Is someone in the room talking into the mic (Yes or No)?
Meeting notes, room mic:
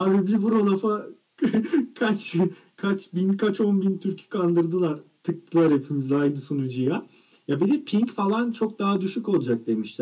Yes